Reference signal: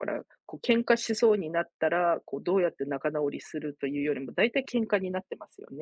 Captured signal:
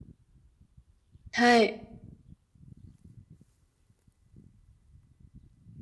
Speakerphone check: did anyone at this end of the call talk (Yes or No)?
Yes